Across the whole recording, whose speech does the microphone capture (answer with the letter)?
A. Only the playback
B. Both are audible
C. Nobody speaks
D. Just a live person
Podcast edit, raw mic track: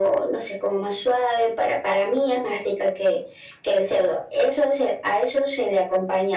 A